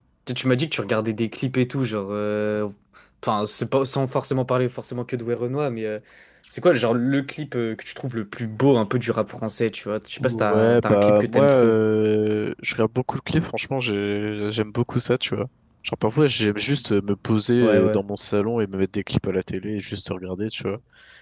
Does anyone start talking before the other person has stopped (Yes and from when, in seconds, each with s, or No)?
Yes, from 10.2 s